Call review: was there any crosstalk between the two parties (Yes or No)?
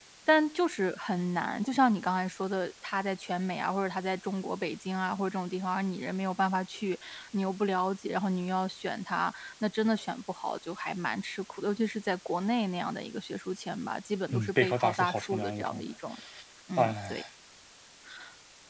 Yes